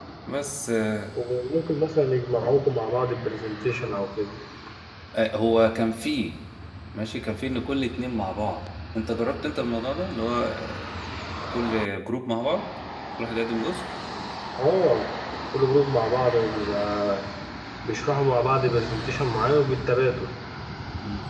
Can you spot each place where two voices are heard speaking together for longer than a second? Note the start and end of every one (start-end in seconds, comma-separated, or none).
none